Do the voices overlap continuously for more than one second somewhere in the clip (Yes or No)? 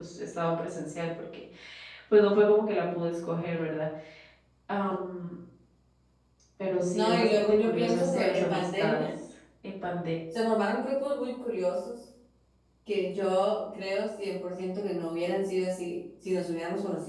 Yes